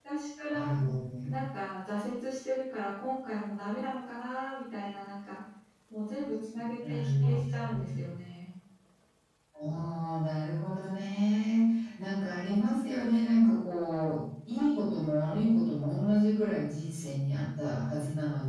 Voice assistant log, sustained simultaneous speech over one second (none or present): none